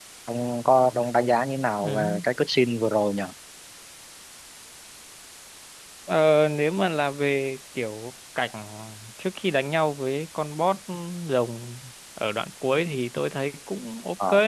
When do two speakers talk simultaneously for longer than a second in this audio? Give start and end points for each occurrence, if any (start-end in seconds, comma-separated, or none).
none